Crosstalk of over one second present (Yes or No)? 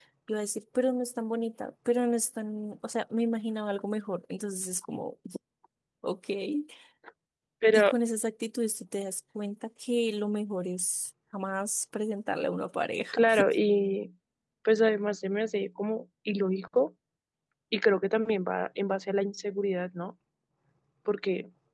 No